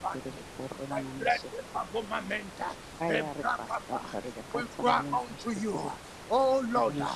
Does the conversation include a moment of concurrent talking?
Yes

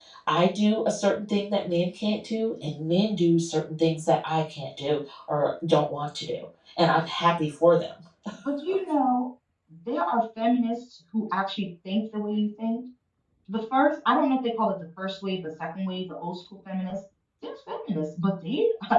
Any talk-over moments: No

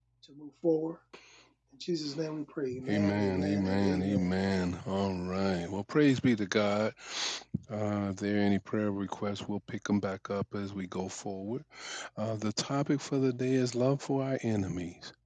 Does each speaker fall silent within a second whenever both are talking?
No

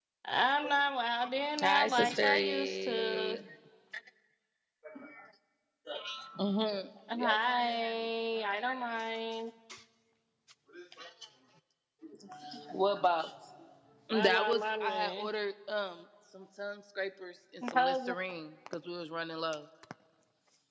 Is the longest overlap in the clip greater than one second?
Yes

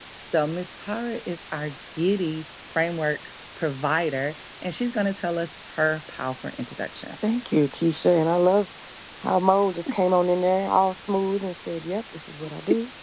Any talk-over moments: No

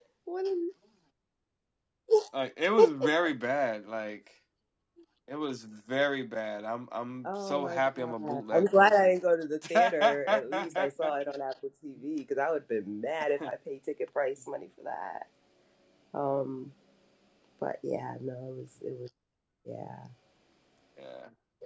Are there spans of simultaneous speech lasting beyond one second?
Yes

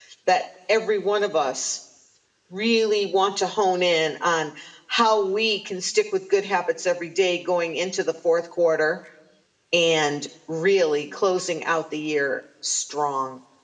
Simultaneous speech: No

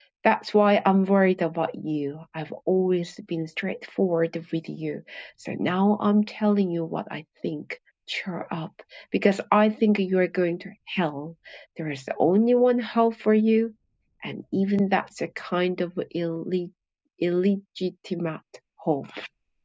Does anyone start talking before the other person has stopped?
No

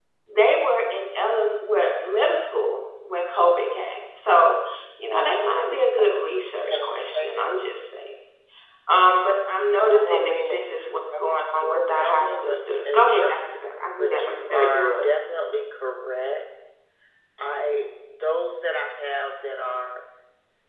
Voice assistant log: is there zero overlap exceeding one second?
No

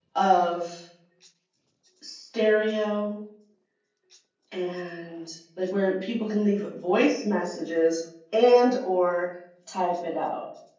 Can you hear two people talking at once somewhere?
No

